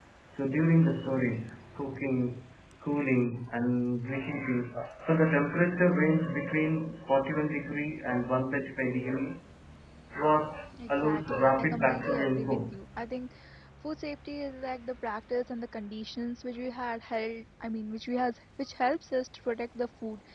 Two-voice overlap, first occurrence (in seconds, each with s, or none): 10.9 s